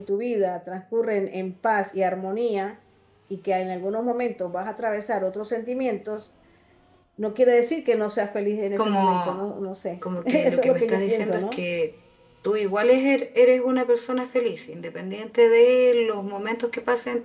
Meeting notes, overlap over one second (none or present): present